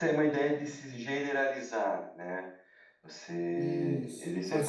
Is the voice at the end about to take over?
Yes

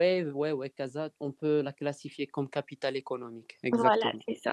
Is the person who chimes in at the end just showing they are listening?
No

